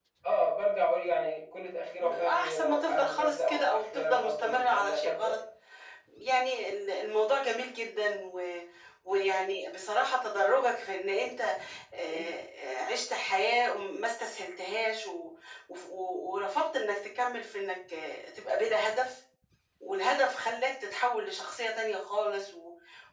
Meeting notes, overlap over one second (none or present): present